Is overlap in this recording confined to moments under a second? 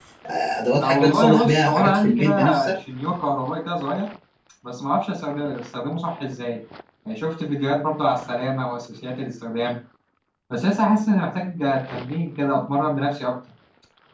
No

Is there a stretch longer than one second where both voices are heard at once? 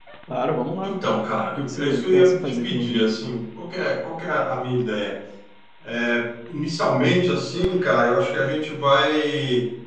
Yes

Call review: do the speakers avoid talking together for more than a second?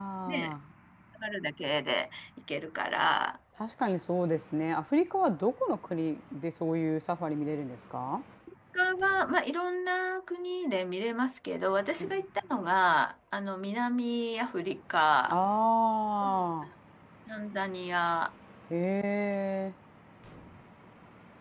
Yes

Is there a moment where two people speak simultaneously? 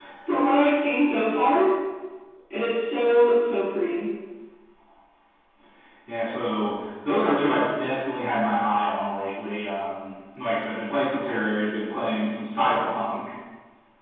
No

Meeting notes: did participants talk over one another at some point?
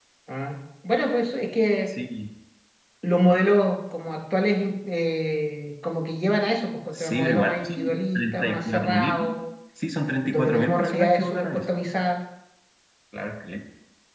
Yes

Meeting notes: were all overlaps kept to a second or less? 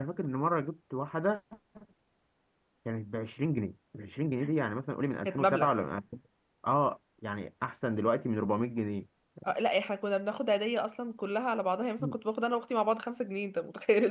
Yes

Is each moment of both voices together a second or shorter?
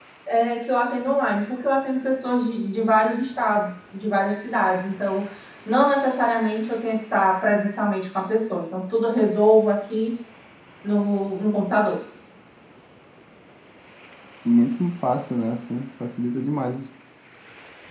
Yes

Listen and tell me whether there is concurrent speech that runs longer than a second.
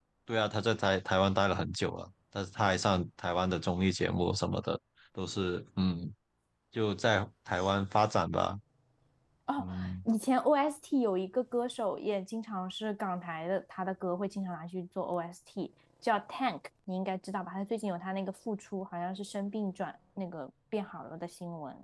No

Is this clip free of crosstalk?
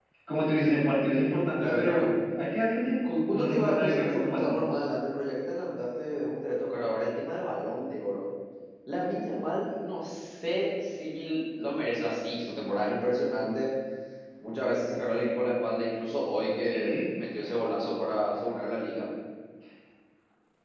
No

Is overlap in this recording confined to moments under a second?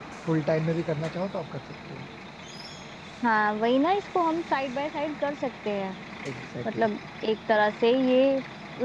Yes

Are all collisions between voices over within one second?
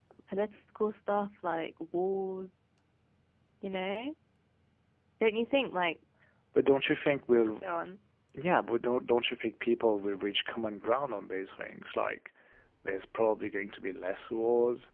Yes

